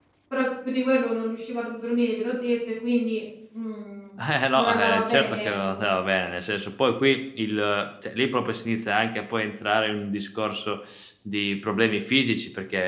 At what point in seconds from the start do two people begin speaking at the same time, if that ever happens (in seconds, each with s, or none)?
4.5 s